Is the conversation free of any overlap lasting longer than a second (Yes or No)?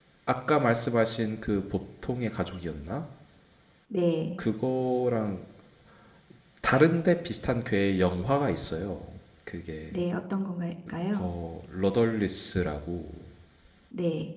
Yes